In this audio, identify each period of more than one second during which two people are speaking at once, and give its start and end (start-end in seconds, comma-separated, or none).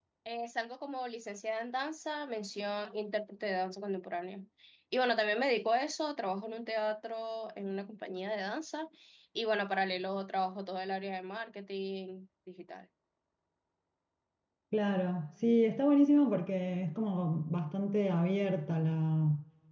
none